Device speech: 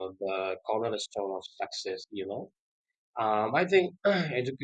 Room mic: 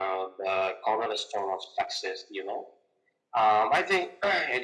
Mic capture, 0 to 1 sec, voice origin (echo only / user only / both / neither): echo only